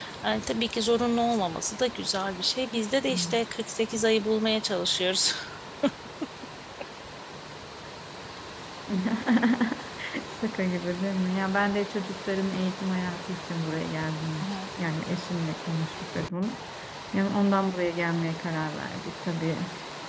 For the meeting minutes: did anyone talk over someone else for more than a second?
No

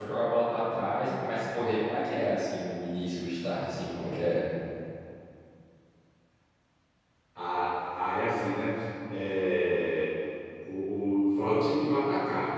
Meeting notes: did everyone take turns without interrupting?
Yes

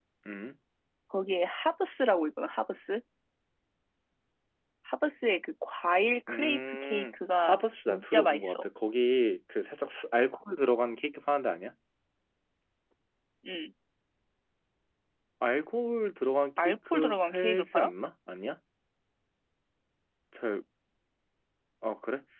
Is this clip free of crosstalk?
No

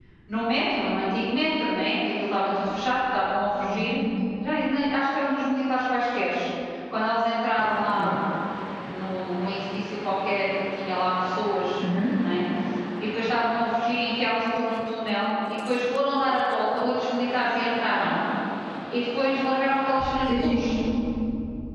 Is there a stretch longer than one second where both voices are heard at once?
No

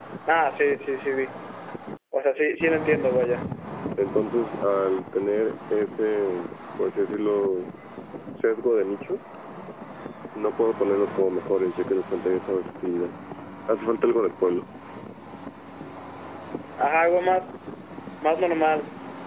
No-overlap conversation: Yes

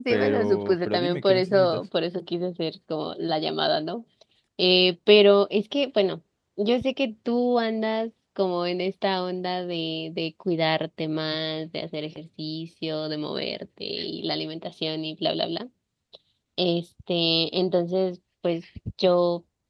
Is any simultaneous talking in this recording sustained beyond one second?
Yes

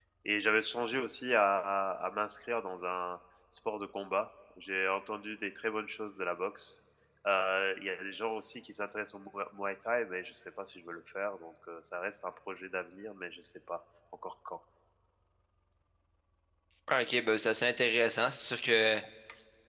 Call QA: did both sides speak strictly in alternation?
Yes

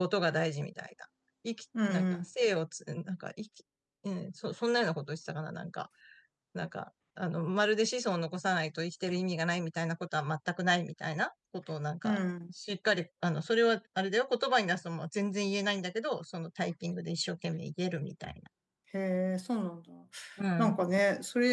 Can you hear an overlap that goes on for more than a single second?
No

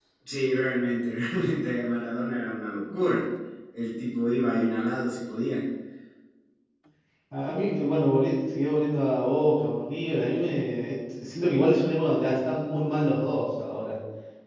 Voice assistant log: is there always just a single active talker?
Yes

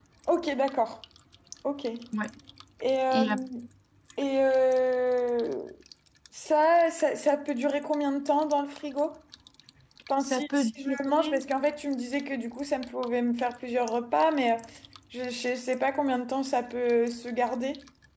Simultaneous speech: Yes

